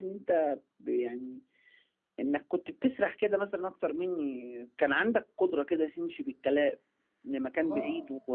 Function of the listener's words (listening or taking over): listening